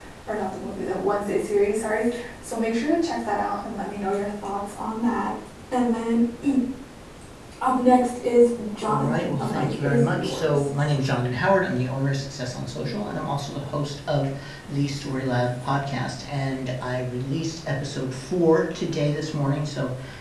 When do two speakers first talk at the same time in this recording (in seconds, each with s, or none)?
8.7 s